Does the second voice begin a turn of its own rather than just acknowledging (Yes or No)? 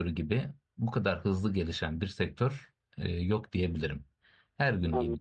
No